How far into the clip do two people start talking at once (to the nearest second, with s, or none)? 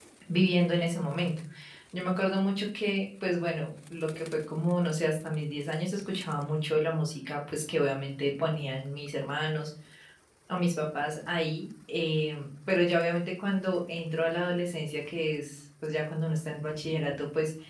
none